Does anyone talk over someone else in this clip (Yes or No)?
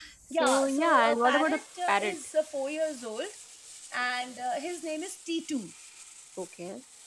Yes